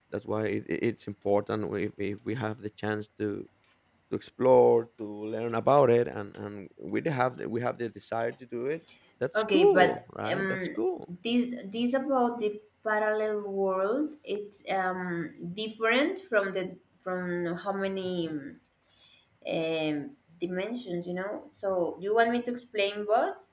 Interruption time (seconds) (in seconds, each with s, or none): 9.3 s